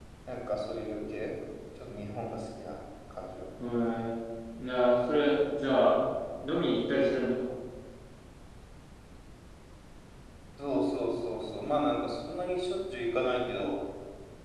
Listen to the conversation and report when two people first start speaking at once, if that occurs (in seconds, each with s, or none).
none